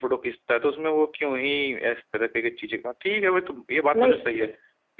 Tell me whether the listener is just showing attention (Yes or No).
Yes